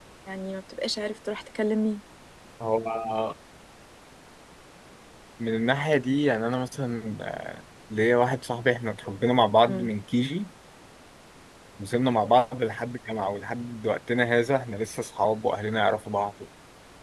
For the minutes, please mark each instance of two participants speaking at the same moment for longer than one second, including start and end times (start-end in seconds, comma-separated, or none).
none